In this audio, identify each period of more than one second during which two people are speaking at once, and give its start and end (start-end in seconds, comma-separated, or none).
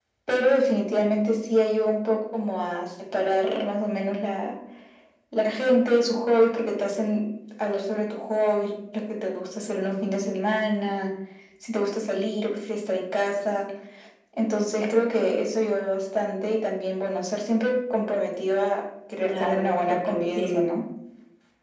19.2-20.7